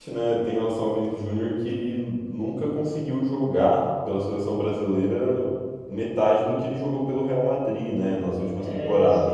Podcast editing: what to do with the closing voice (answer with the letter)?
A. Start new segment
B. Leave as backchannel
B